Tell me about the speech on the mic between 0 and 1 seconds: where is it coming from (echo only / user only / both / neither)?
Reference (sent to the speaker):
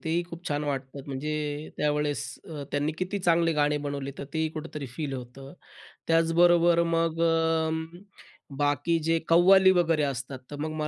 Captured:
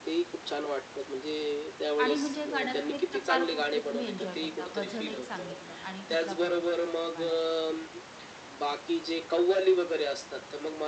echo only